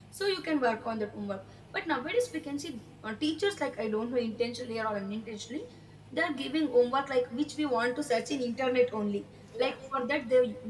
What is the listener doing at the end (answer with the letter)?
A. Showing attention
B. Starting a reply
A